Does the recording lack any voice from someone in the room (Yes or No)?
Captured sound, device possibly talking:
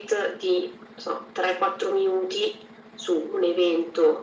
Yes